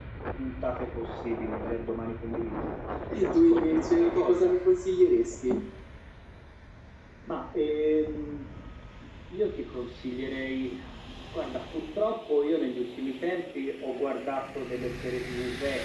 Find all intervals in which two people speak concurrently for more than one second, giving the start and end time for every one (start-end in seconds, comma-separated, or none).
3.3-4.6